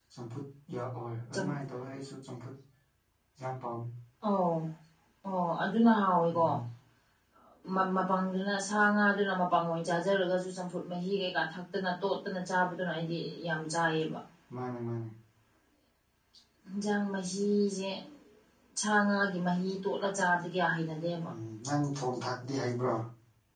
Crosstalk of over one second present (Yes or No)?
No